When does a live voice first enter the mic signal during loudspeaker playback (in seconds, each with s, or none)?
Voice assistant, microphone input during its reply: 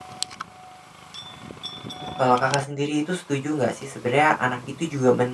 2.2 s